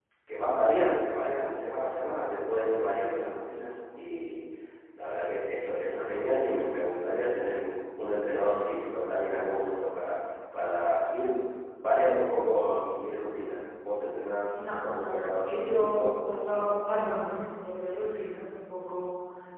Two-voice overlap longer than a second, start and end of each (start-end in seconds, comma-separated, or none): 14.6-16.7